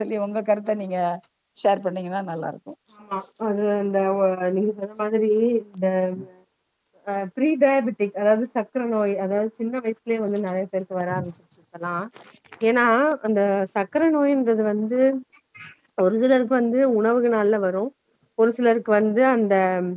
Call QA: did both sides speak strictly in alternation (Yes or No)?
Yes